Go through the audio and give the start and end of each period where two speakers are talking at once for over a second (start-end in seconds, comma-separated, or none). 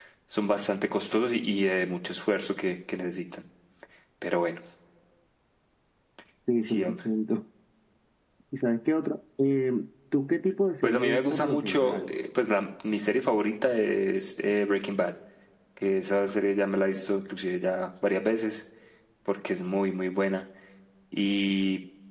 10.8-12.1